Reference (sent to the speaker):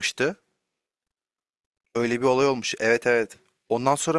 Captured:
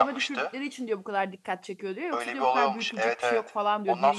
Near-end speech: present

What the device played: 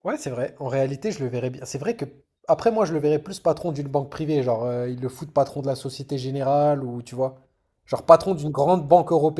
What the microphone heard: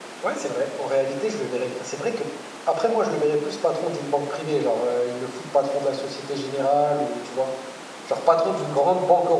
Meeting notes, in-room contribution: none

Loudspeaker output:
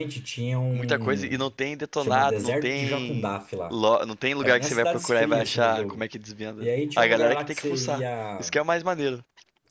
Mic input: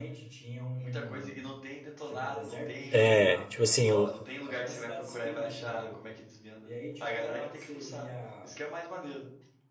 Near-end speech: present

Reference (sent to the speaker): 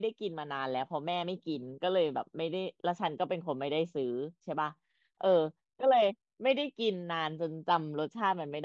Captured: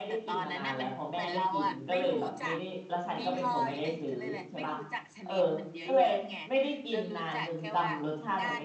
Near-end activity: present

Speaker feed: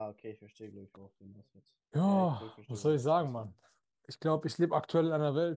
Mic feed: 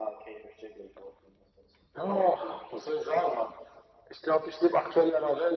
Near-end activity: none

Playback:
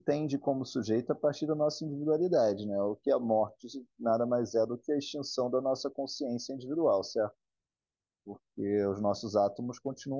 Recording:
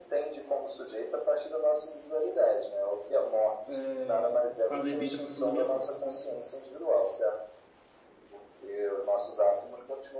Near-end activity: present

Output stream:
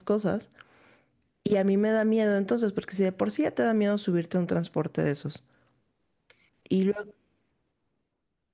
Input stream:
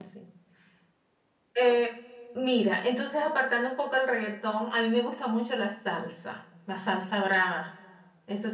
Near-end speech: present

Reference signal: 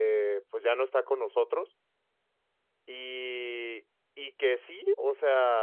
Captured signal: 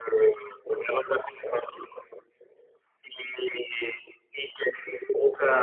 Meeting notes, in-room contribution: none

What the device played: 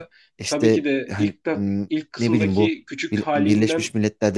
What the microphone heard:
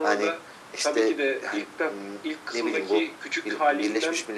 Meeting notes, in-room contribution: none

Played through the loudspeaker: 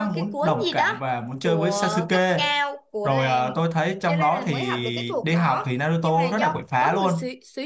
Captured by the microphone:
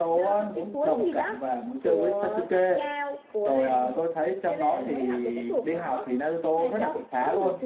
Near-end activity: none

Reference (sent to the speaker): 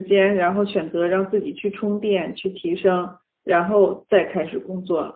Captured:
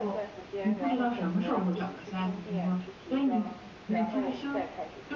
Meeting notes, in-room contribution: present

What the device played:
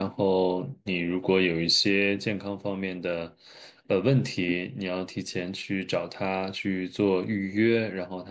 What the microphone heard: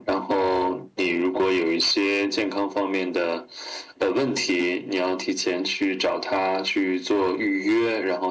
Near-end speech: none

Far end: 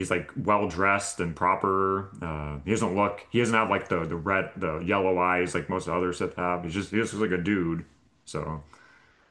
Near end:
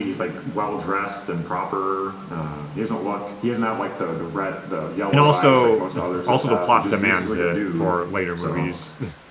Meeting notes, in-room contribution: present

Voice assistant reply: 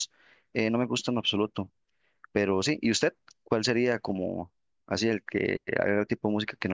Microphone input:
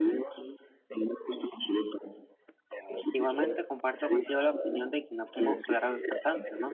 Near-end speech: present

